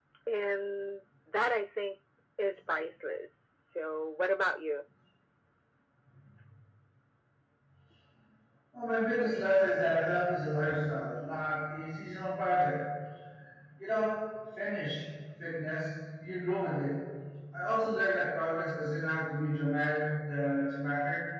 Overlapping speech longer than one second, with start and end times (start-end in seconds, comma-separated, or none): none